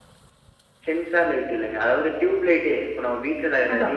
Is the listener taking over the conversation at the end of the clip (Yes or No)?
Yes